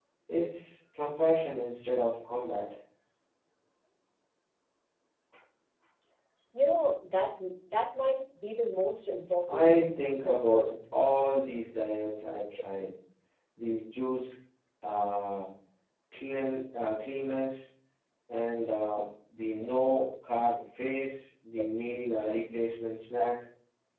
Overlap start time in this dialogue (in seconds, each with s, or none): 9.5 s